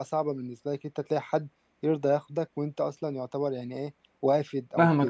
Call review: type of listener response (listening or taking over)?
taking over